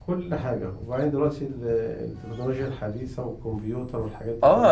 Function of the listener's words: taking over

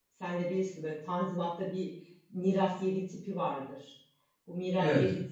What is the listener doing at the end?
listening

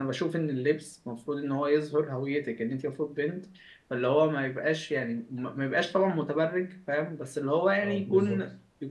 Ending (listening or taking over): listening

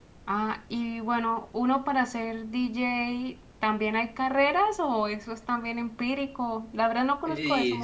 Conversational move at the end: taking over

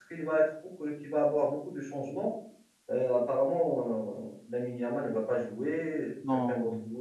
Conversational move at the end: listening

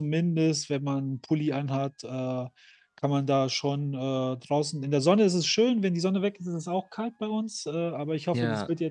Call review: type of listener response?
listening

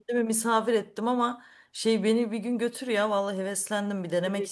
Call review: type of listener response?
taking over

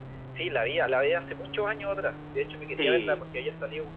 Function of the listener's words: listening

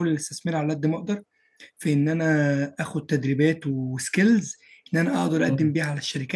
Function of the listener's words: listening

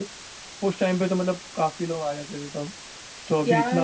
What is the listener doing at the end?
taking over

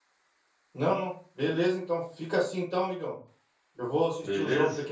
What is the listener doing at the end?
listening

